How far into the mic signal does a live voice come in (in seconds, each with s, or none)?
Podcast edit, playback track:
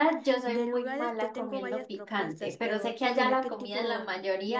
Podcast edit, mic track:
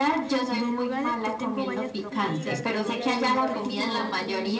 2.1 s